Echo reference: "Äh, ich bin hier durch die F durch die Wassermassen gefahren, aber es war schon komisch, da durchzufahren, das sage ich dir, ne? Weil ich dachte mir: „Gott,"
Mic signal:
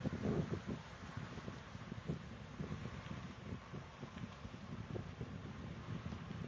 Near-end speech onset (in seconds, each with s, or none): none